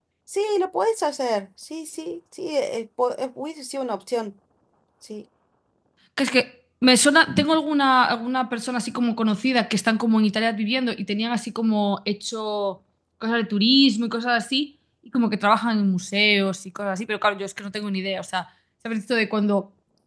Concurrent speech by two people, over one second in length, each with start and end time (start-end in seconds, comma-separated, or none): none